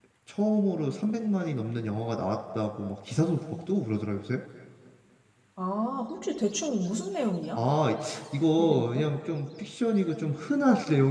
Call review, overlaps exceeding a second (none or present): none